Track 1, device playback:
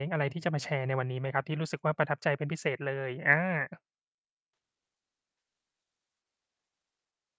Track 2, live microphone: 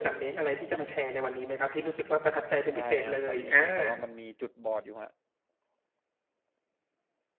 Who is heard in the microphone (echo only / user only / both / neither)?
both